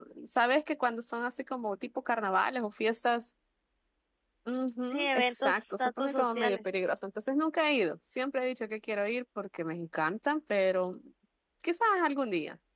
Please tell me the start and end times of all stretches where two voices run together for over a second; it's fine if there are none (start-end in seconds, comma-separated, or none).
4.9-6.6